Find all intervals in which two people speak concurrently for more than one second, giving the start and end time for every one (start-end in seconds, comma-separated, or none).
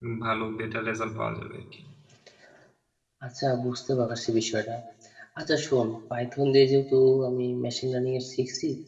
none